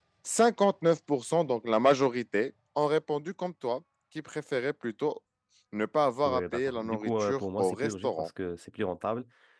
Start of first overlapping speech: 6.2 s

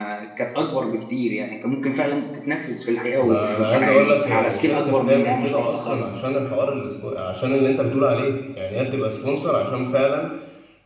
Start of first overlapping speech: 3.2 s

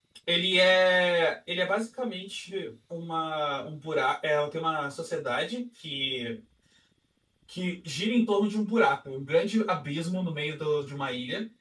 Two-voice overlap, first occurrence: none

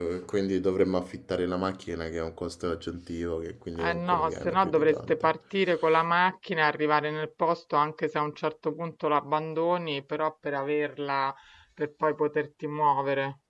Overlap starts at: 3.8 s

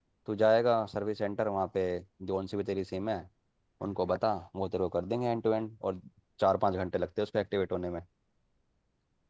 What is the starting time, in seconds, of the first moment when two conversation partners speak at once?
none

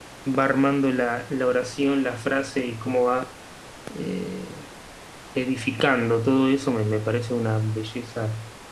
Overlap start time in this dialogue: none

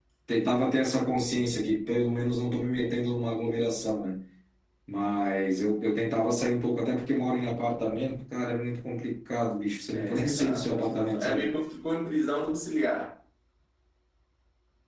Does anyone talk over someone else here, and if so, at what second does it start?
9.9 s

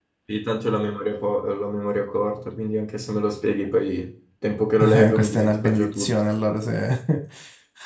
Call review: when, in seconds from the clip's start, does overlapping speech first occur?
4.8 s

